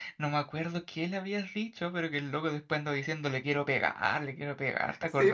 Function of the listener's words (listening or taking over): taking over